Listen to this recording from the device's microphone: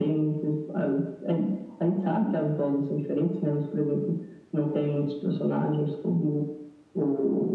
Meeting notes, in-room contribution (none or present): none